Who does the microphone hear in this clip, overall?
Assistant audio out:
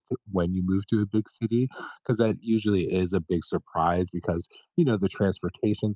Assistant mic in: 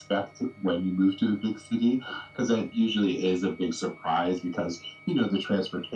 echo only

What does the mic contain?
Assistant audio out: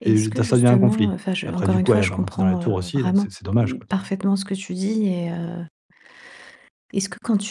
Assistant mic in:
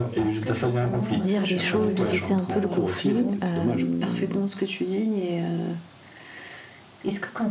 both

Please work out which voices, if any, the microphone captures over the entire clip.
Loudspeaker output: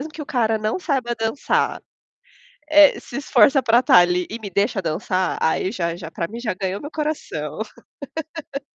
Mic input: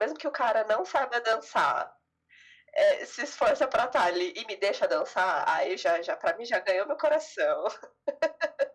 echo only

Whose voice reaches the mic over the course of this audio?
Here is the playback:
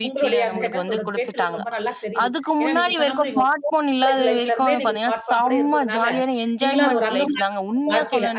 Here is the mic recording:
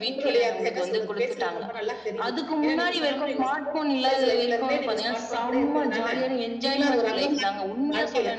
echo only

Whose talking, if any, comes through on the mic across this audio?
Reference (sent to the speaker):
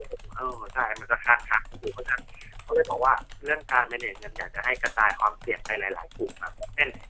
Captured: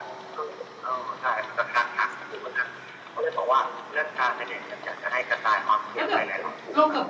both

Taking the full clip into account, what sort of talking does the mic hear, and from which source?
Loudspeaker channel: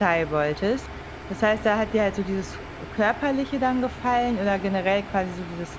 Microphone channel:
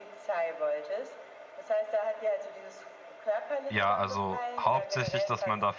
both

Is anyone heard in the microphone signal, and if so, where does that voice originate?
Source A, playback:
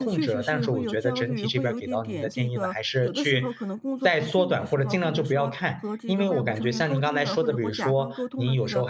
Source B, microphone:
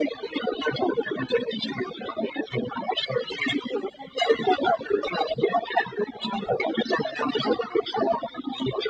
echo only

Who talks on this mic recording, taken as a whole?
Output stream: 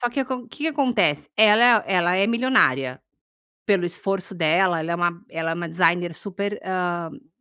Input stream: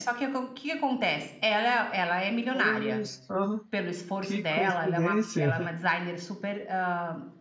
both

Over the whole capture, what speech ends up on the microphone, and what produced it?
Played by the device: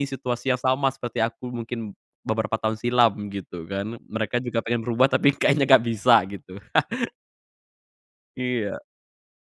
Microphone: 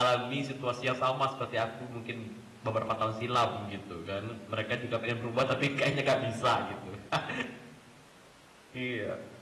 echo only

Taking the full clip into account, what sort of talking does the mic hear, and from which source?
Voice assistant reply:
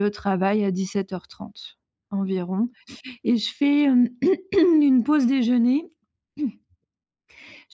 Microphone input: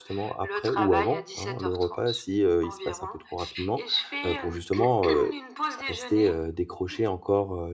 both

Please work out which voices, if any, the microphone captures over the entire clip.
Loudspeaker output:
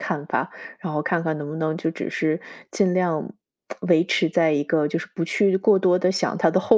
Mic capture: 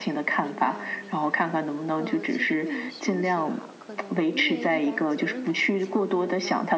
both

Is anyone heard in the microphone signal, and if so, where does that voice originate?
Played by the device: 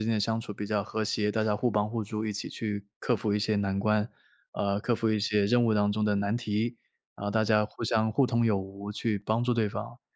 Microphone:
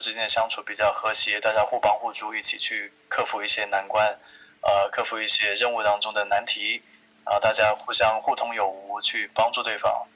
echo only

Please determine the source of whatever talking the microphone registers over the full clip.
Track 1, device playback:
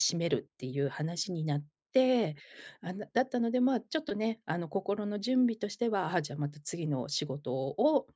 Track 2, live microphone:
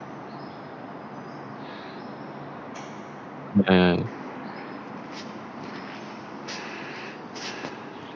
user only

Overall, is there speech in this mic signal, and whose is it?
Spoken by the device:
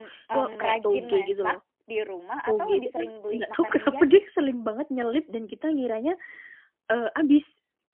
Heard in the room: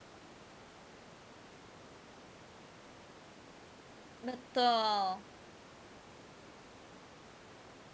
user only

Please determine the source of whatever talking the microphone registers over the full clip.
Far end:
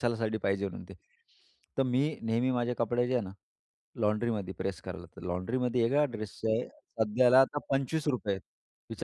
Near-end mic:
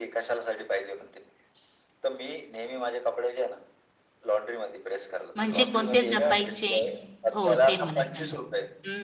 both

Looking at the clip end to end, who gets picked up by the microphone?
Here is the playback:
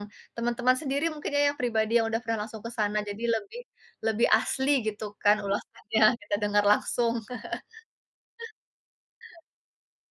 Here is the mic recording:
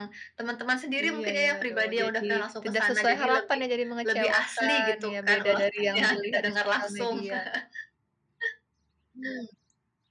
both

